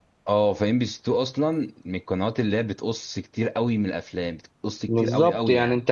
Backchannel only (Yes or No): No